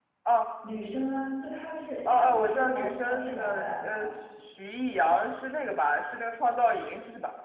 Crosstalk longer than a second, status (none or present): present